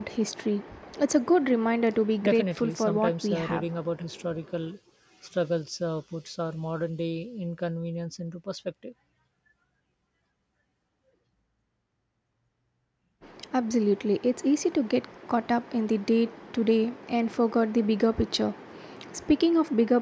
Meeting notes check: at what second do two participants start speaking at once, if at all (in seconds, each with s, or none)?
2.2 s